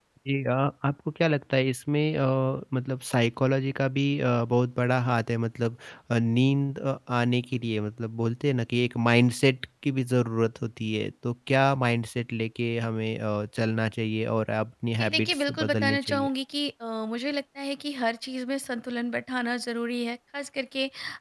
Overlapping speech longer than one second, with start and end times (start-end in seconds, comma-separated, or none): 15.0-16.3